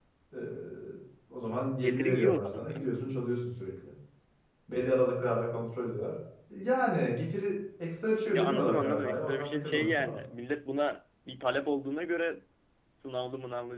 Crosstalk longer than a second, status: present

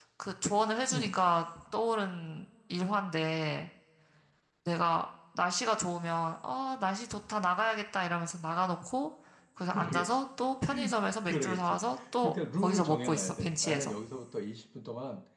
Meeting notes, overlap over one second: present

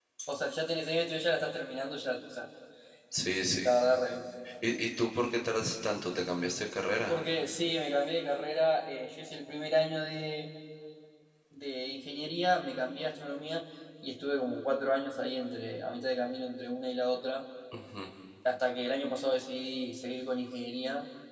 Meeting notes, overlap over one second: none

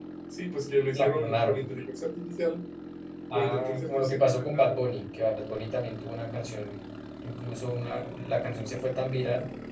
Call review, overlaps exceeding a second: present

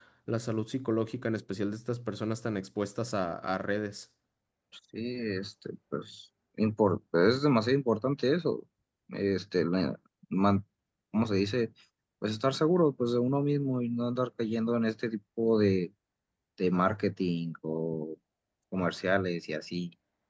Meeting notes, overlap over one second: none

